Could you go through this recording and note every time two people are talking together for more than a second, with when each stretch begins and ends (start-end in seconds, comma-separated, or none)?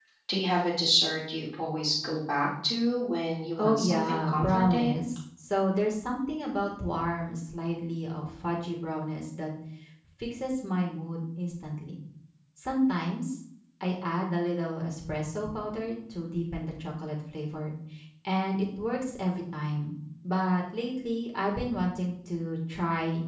3.6-5.0